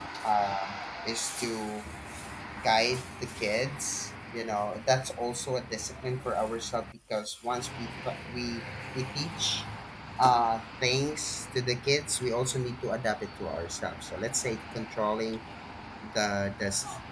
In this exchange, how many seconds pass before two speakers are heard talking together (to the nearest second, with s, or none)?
none